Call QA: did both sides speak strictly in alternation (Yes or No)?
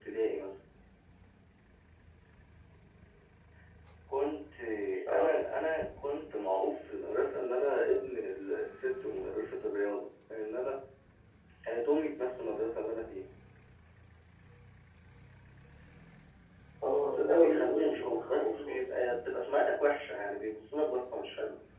No